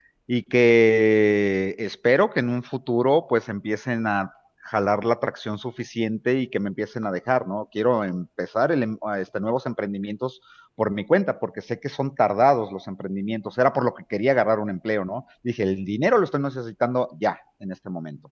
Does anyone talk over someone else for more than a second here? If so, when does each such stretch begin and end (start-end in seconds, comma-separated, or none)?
none